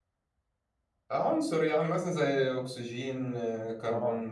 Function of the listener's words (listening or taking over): taking over